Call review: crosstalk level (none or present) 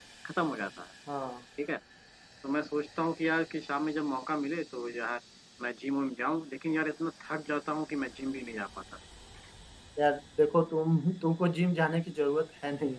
none